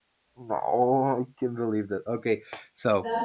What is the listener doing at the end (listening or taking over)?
taking over